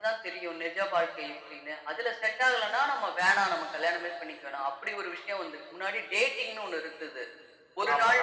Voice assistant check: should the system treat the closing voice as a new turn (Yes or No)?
No